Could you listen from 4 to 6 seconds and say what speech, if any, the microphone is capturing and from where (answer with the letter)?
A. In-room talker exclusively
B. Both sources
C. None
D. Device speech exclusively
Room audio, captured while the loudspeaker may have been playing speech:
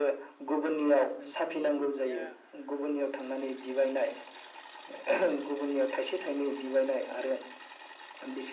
D